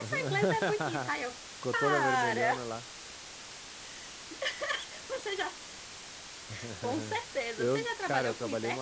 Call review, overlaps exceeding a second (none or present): present